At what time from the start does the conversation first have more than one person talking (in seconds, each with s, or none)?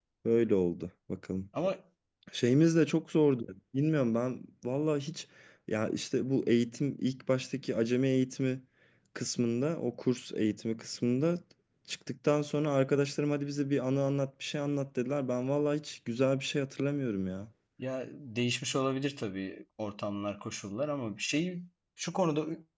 none